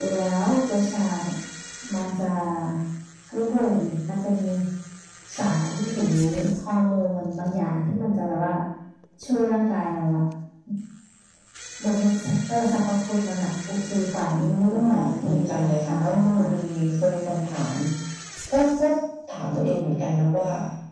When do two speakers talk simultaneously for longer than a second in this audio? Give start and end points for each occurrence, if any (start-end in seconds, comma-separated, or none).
14.4-16.5